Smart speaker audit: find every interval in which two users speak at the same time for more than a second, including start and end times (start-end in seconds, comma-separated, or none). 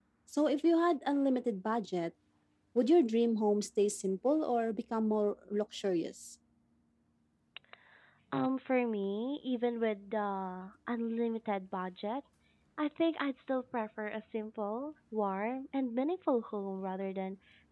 none